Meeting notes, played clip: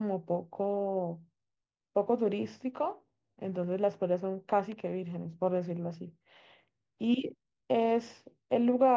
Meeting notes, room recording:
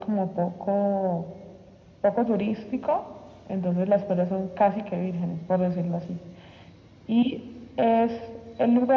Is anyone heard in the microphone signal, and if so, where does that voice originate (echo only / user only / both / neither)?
echo only